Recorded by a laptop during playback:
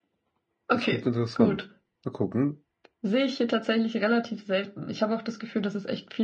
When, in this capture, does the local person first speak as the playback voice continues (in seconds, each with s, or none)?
0.7 s